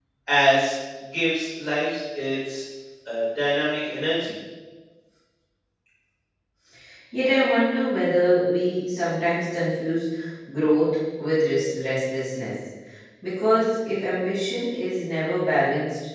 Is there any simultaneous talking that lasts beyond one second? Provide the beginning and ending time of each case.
none

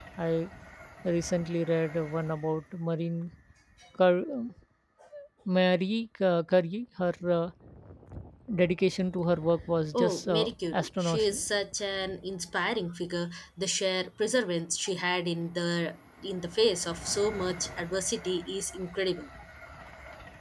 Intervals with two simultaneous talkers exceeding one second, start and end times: 9.9-11.4

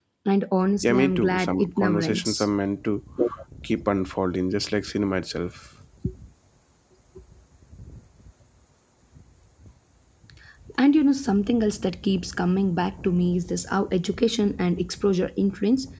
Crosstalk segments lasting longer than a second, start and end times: 0.8-2.5

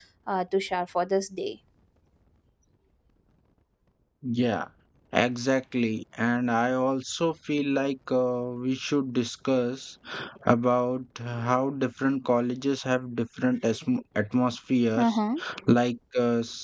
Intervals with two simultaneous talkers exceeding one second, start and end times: none

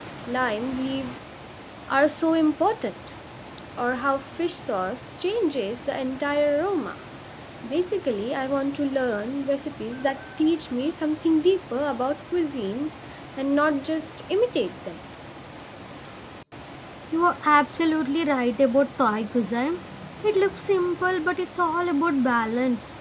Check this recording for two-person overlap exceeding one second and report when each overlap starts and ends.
none

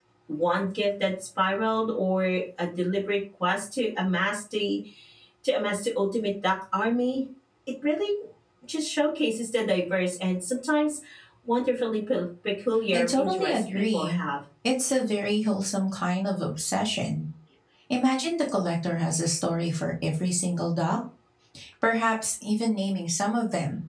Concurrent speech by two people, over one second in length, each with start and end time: 12.9-14.2

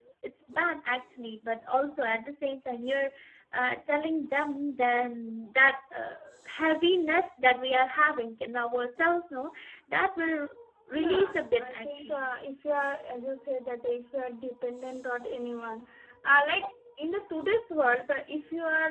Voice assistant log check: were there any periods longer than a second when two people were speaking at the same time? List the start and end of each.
11.0-12.3

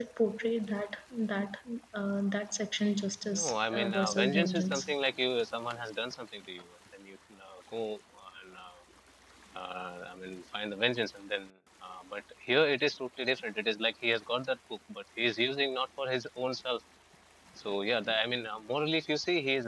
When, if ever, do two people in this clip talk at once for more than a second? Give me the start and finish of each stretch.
3.3-4.9

